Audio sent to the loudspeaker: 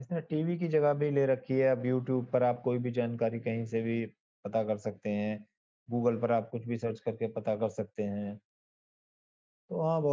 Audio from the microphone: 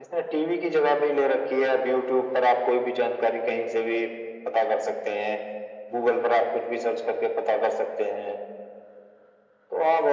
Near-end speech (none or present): none